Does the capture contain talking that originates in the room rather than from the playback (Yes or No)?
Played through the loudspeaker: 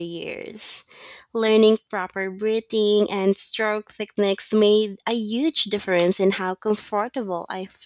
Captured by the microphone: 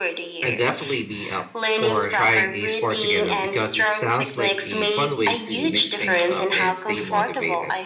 Yes